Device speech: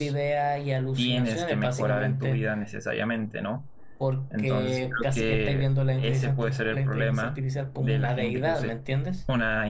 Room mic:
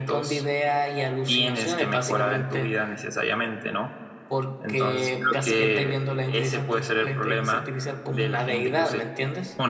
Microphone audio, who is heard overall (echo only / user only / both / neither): echo only